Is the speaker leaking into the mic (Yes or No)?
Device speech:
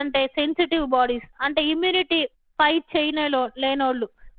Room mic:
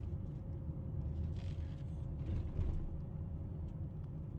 No